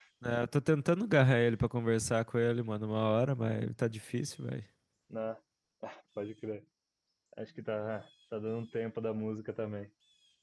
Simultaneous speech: No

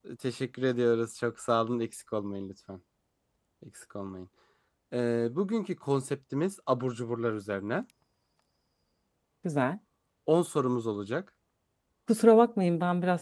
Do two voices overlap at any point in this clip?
No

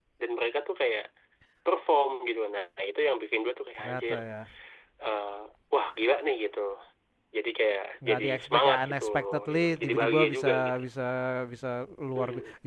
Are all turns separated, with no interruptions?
No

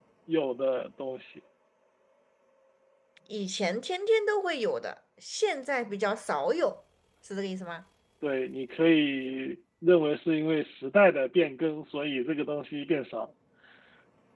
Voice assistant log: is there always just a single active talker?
Yes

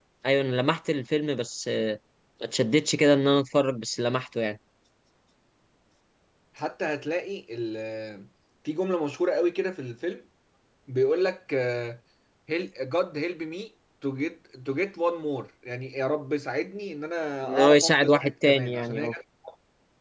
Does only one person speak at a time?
No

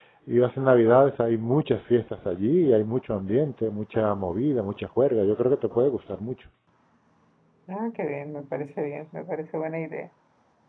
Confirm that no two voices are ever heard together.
Yes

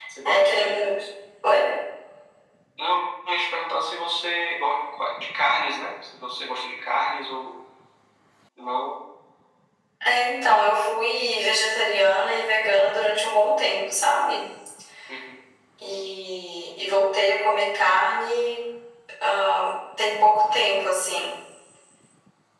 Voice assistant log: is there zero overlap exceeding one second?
Yes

